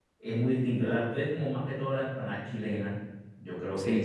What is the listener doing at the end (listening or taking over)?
taking over